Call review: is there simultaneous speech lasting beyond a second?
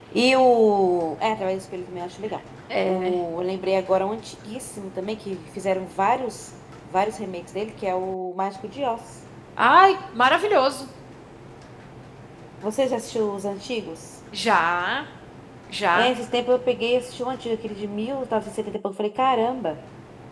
No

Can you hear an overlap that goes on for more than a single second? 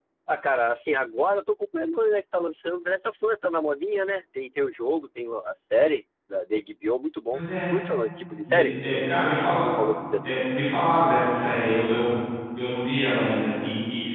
No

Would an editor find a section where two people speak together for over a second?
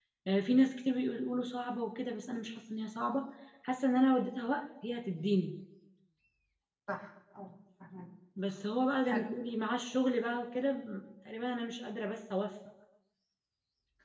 No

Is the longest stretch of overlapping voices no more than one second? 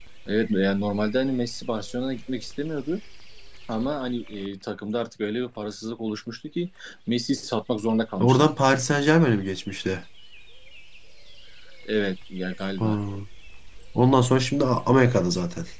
Yes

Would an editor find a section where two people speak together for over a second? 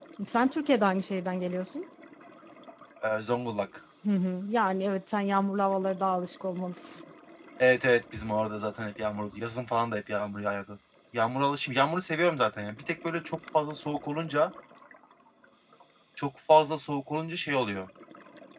No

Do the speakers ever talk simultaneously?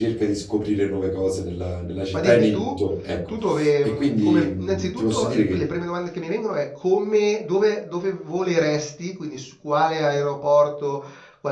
Yes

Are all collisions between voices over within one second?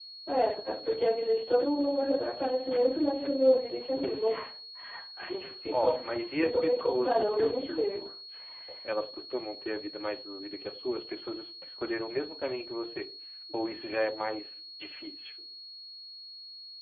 No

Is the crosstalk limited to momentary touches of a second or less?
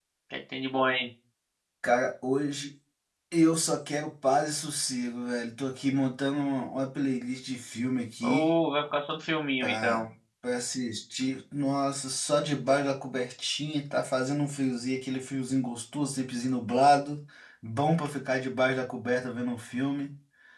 Yes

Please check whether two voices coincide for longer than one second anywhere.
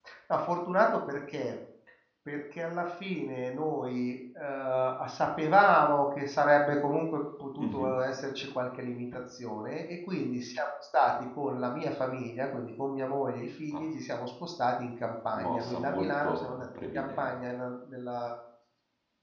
Yes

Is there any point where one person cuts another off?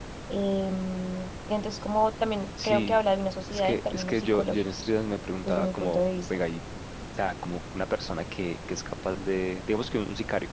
Yes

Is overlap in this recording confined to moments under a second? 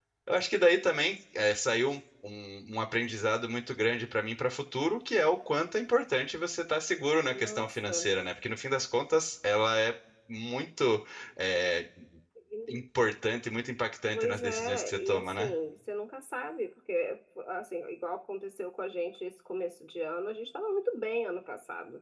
No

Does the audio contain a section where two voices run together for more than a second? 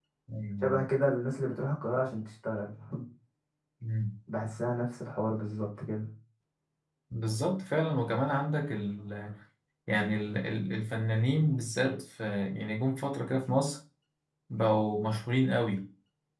No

